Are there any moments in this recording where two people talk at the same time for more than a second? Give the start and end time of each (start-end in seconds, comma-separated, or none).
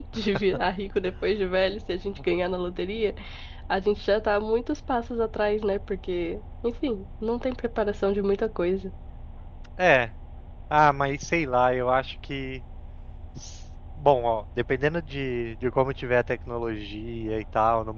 none